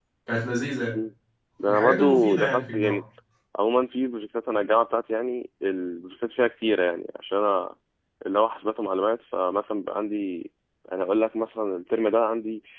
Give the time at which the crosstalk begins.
1.6 s

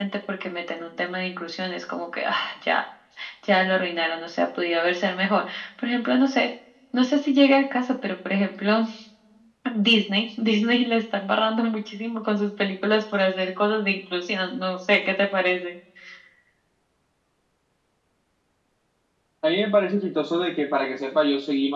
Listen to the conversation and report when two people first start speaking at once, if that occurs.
none

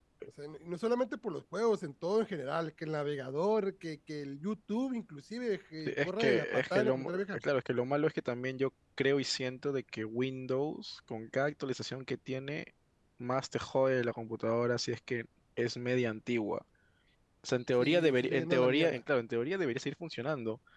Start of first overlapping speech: 5.9 s

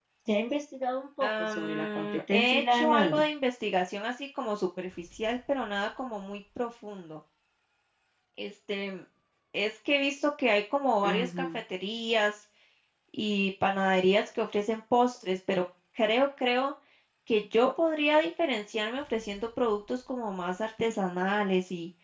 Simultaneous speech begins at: 1.2 s

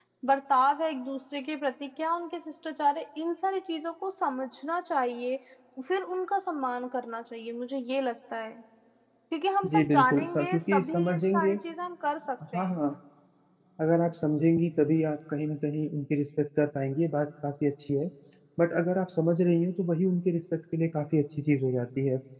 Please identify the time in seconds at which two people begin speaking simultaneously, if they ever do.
9.7 s

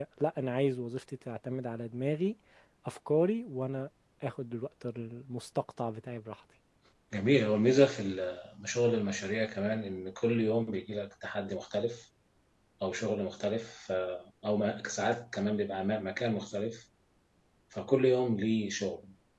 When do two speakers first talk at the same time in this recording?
none

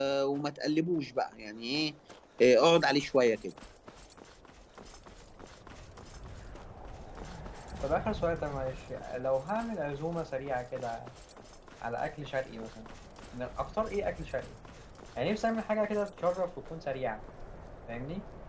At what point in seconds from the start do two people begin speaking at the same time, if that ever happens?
none

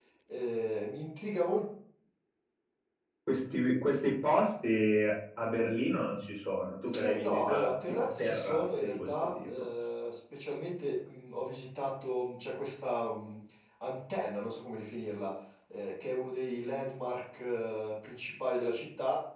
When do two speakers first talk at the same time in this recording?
6.8 s

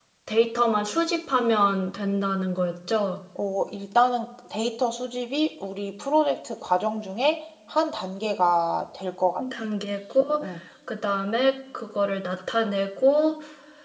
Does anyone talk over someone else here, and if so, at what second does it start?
none

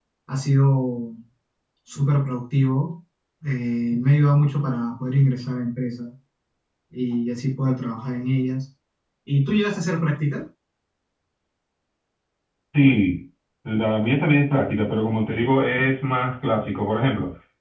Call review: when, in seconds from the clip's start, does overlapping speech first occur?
none

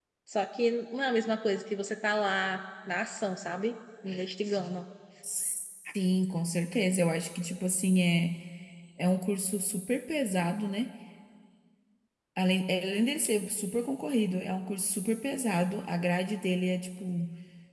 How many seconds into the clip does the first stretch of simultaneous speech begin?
none

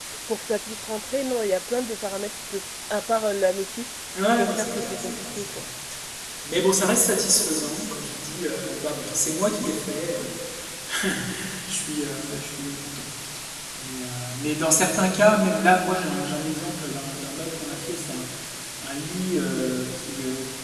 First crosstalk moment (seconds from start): 4.2 s

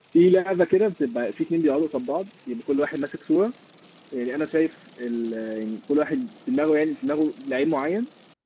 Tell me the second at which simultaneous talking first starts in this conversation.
none

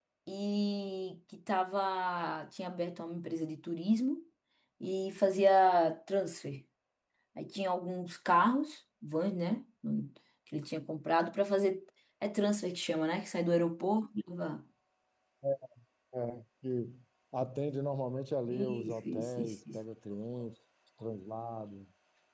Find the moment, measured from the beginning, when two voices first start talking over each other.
18.5 s

